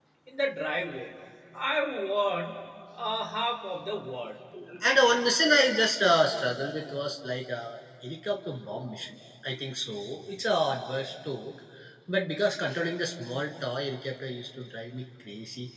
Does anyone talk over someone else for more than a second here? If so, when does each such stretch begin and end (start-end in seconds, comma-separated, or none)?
none